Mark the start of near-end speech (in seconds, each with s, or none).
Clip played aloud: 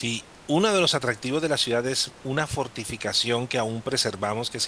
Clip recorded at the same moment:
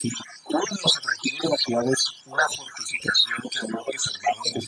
none